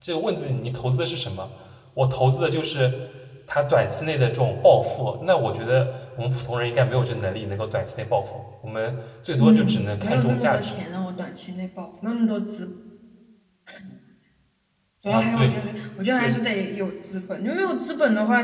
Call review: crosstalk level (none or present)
present